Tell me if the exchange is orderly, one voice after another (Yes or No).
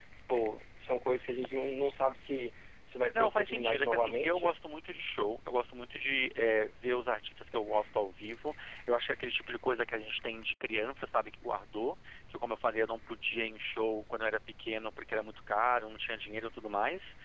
No